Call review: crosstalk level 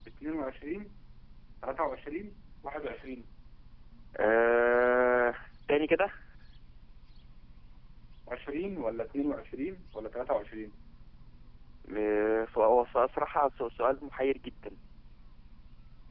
none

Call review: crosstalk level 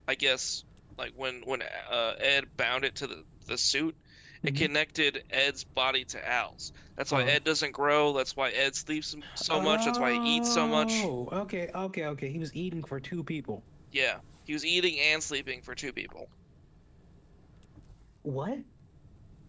present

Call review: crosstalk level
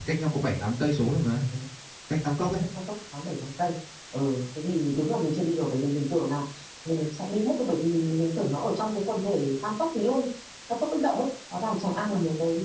none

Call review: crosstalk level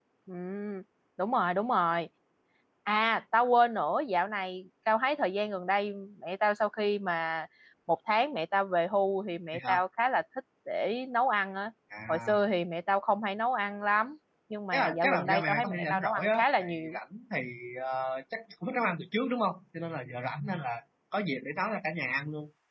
present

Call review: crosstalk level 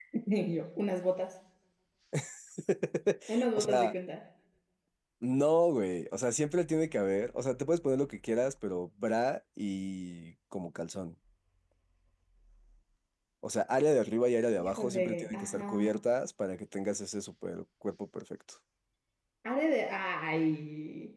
present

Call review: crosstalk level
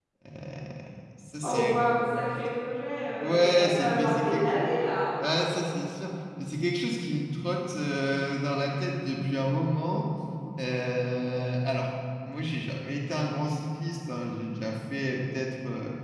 present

